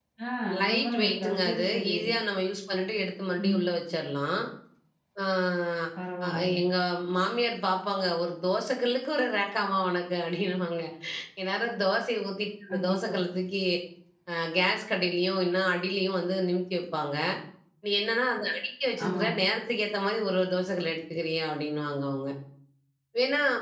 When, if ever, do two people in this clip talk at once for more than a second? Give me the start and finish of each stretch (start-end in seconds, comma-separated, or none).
0.6-2.0